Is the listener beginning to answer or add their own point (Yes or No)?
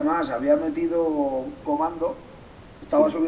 No